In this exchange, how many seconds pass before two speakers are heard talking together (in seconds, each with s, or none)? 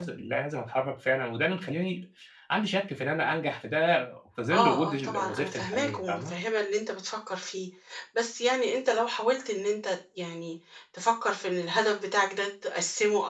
4.5 s